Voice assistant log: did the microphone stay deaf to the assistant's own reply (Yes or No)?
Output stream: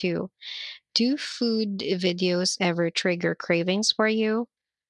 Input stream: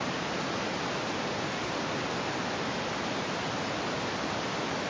Yes